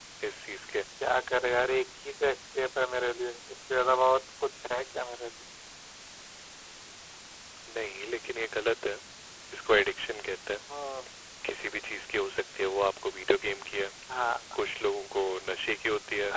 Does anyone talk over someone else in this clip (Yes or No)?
No